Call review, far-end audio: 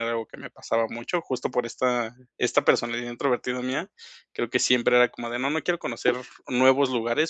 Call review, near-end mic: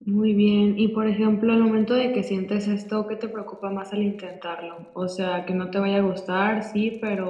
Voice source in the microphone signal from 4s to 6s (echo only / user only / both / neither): user only